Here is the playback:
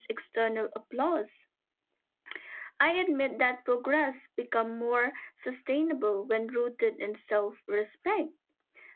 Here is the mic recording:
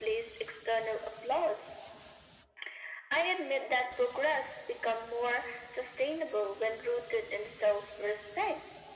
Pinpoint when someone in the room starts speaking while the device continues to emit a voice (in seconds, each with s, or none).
none